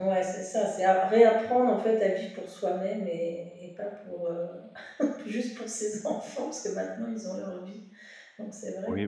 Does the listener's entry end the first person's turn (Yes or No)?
Yes